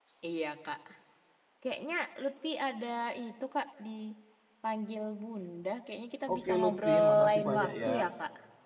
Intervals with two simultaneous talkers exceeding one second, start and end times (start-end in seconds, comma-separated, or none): 6.3-7.9